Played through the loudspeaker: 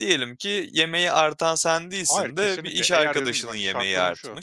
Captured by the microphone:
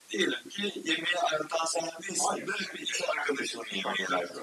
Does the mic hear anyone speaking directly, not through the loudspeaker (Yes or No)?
No